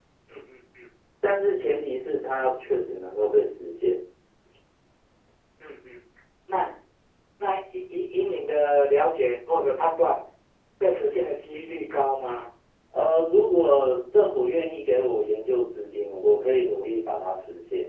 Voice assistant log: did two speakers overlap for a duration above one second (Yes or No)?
No